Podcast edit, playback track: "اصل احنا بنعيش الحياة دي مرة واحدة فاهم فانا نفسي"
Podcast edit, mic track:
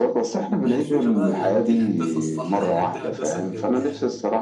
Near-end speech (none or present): present